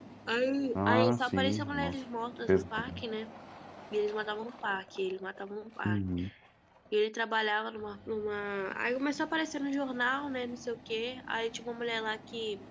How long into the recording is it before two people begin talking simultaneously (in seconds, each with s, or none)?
0.8 s